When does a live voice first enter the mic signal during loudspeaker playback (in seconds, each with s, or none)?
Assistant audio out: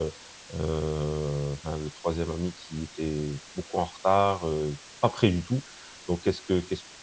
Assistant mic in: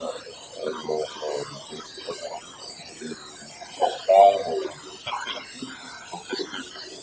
none